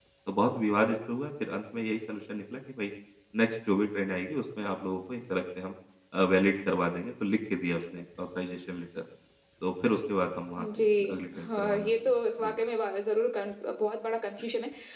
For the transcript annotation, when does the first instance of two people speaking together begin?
10.6 s

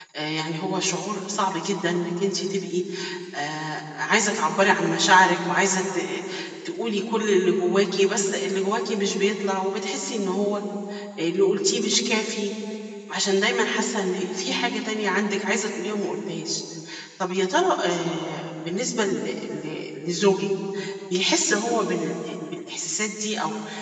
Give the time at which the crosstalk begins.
none

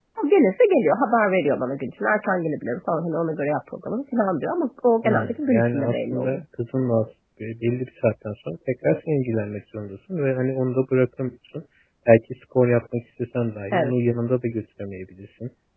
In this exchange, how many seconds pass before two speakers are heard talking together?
5.0 s

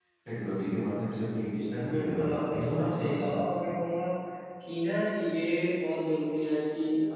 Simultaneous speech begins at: 1.7 s

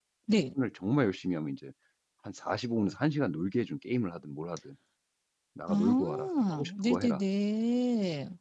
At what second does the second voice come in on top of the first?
5.7 s

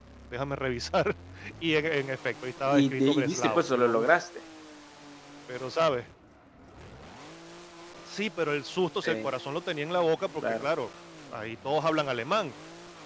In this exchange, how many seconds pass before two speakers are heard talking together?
2.8 s

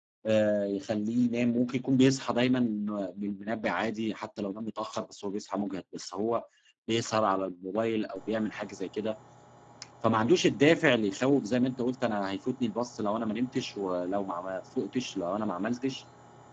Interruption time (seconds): none

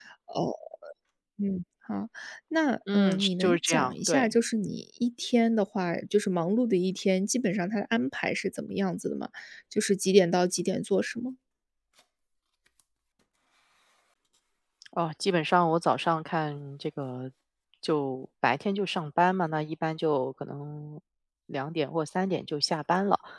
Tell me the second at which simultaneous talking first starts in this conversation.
2.9 s

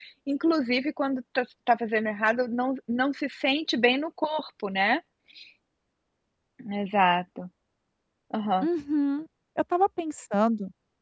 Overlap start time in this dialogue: none

